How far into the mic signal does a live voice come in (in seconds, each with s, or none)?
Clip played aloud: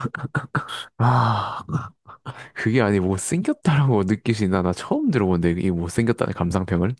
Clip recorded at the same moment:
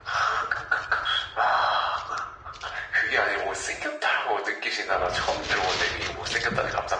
none